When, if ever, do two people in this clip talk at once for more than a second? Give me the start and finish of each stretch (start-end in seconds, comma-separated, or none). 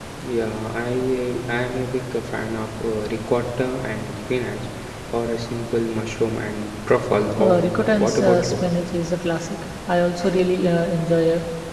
7.4-8.7